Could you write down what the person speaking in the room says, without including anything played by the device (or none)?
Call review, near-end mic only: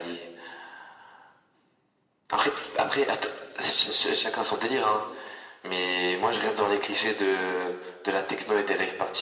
none